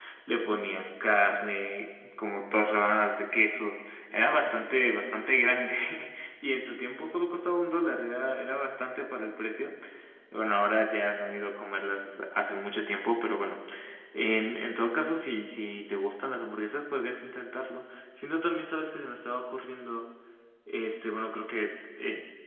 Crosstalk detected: No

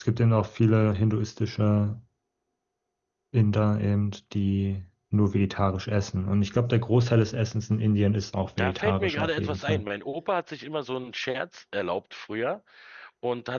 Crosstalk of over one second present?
Yes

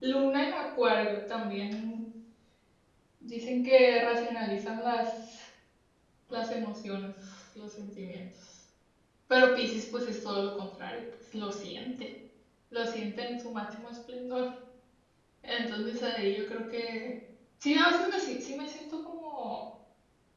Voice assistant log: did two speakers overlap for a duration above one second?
No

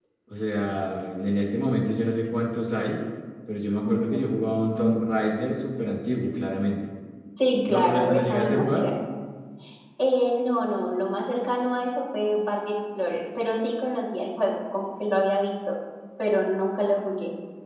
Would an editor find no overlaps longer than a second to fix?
No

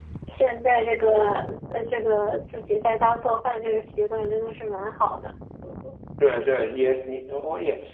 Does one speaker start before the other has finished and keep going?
No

